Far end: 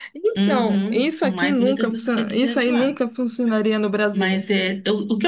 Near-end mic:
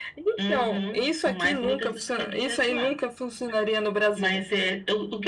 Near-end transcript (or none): none